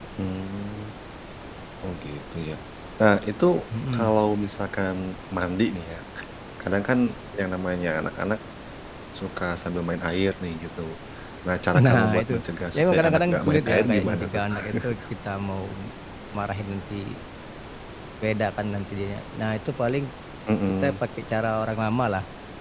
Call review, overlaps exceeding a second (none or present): present